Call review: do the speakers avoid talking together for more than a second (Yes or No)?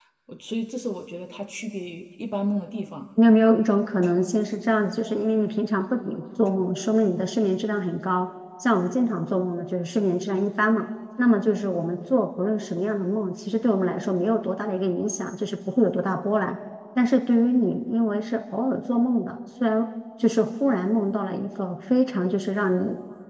Yes